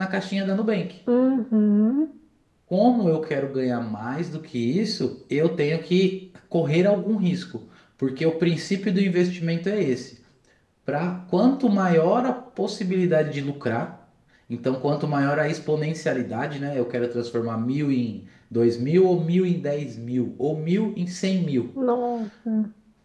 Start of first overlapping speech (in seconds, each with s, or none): none